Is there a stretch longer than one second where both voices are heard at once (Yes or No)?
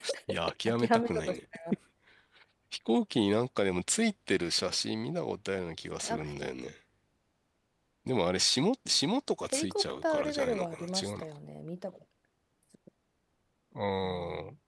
Yes